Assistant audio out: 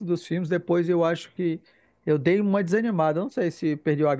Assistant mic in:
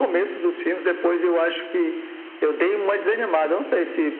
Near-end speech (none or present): none